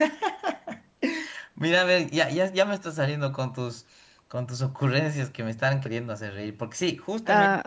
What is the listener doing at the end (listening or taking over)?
taking over